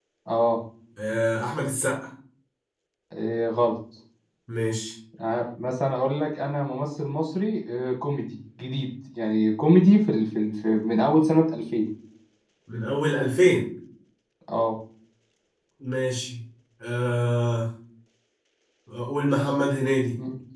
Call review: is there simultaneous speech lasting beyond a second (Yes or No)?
No